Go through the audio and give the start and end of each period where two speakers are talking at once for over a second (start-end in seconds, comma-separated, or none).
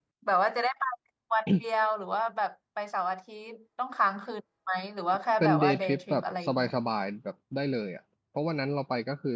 5.4-6.7